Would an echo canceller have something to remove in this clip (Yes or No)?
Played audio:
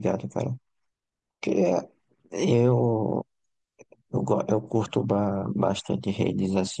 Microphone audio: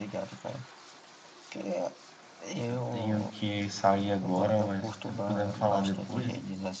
Yes